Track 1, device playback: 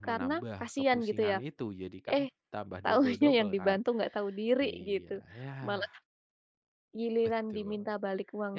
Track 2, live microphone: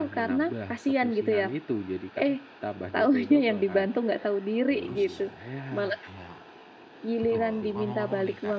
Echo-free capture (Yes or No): No